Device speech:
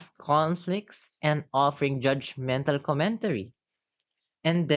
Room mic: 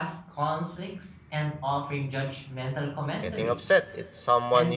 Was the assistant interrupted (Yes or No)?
Yes